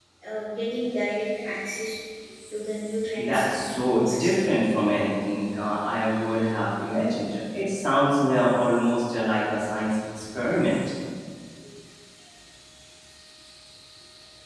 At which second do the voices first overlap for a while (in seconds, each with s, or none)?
3.2 s